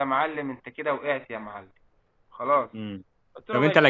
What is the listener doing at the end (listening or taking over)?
taking over